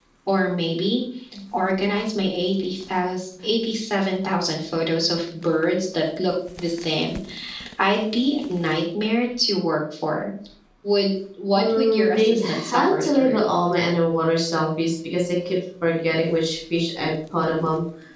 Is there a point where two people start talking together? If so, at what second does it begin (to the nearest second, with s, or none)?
12 s